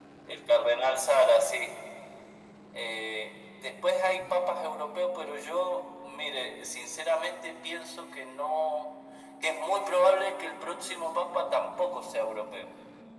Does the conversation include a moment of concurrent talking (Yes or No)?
No